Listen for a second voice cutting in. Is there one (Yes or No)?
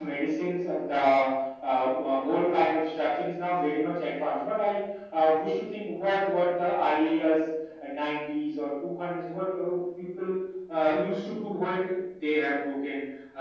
No